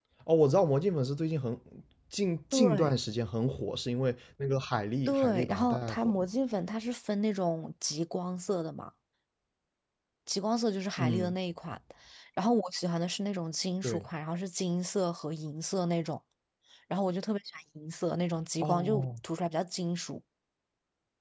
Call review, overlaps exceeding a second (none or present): present